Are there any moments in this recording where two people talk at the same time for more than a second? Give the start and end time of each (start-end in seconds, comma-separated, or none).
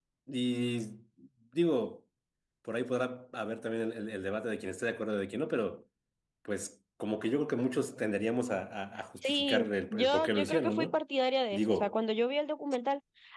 9.2-11.0